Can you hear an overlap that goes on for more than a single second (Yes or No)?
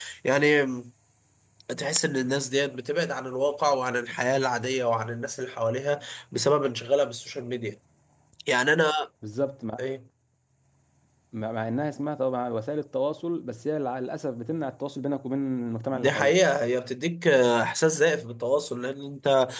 No